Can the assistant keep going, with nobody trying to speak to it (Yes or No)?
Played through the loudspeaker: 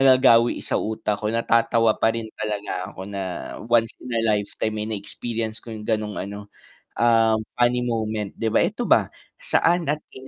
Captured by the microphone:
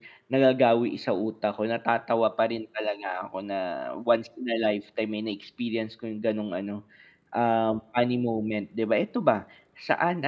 Yes